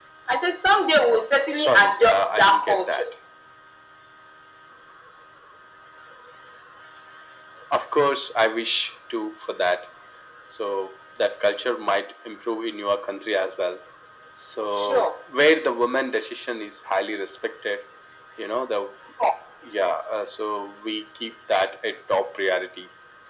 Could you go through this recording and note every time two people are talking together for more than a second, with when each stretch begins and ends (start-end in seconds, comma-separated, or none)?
1.5-3.0